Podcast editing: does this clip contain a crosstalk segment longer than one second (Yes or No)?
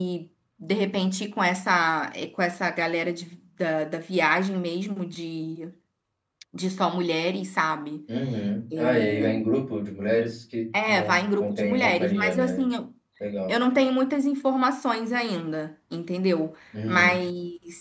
Yes